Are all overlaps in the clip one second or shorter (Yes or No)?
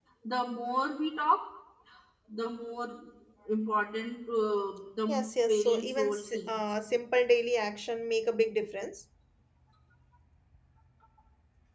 No